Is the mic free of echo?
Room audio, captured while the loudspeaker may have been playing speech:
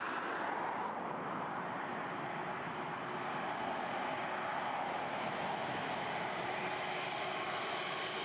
Yes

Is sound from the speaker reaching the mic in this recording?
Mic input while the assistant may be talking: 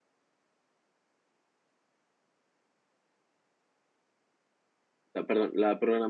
No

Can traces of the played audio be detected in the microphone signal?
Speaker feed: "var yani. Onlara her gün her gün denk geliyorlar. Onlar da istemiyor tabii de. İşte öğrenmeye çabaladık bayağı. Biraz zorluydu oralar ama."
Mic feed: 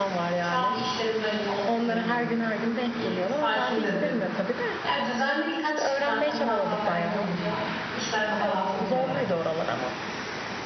Yes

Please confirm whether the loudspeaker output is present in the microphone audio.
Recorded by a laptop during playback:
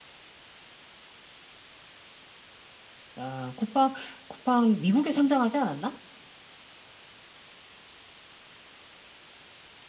No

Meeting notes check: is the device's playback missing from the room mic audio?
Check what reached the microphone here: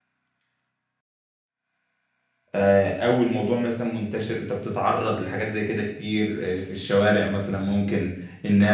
Yes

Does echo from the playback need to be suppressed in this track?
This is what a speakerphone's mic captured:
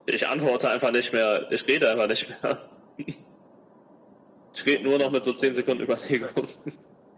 Yes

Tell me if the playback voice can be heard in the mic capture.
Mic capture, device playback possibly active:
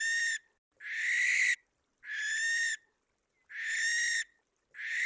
No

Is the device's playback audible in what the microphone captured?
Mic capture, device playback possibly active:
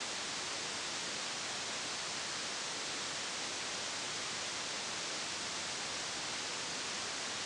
No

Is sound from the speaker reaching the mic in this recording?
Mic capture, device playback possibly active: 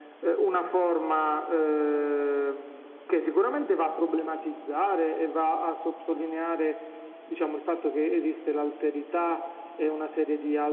Yes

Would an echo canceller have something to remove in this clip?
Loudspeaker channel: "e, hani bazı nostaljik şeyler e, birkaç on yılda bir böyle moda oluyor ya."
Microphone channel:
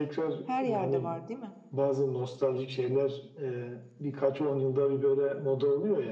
Yes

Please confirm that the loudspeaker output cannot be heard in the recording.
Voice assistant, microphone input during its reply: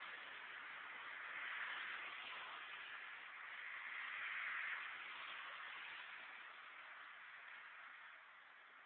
Yes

